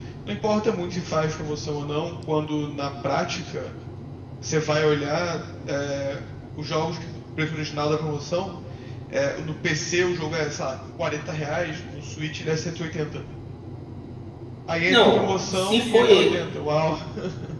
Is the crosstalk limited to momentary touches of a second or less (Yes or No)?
No